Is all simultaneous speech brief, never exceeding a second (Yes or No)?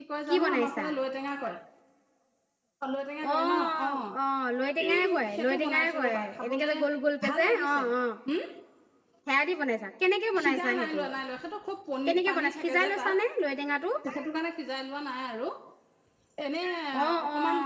No